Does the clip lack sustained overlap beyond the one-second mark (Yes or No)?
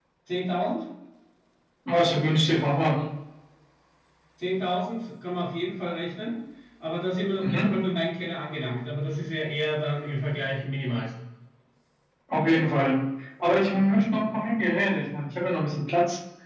Yes